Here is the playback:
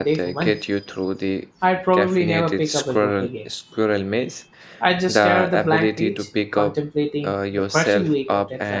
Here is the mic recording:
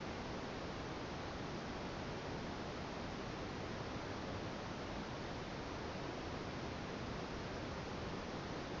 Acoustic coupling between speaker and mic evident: No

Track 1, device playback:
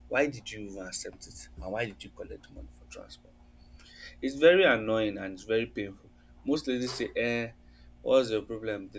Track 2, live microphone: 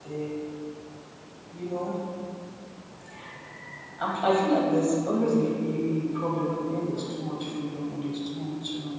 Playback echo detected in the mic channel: No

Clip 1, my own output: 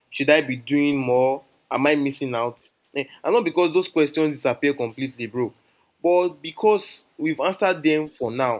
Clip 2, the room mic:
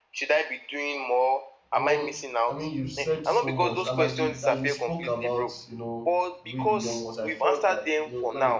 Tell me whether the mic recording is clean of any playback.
No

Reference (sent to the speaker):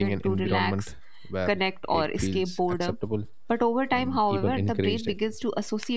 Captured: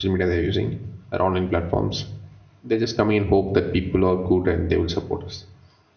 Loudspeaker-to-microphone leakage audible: No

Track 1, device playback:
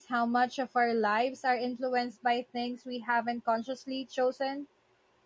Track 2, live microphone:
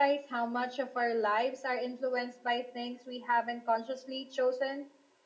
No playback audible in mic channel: No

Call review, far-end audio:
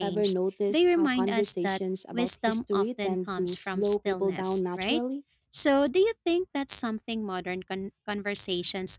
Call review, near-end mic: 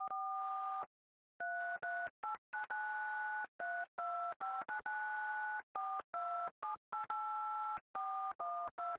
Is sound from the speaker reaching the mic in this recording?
No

